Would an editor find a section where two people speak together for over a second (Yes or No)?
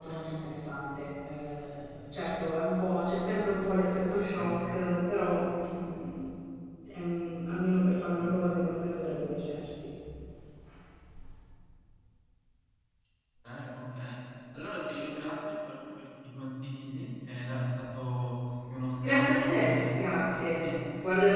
Yes